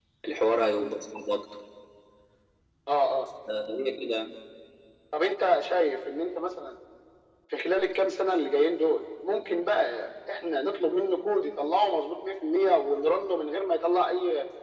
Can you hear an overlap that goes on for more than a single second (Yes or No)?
No